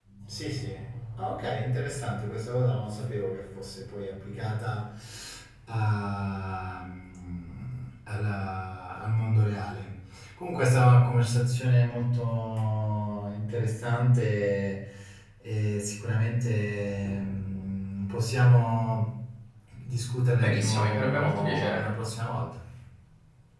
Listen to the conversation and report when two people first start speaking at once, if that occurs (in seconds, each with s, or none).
20.4 s